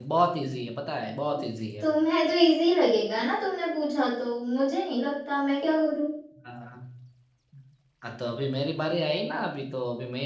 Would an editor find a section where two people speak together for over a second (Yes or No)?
No